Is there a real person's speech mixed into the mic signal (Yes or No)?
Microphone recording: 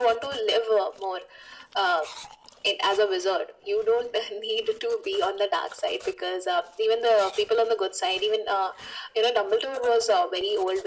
No